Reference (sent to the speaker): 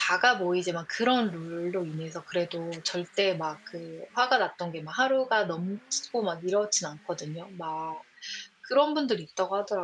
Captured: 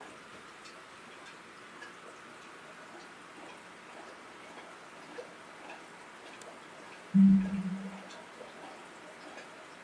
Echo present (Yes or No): No